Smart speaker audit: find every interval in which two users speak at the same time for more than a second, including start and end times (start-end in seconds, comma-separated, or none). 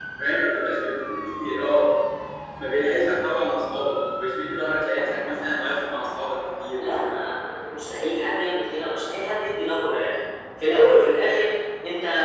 none